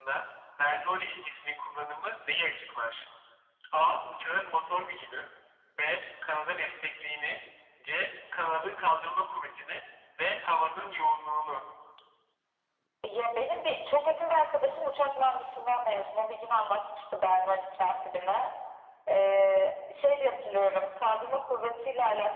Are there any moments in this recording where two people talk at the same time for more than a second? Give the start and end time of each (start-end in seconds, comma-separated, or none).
none